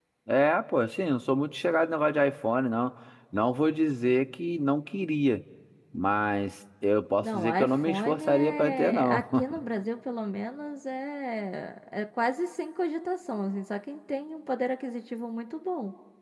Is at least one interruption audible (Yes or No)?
Yes